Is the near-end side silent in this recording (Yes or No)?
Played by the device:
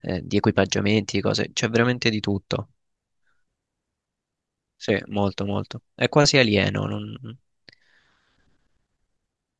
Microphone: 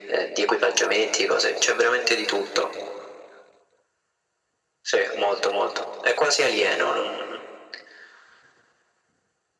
Yes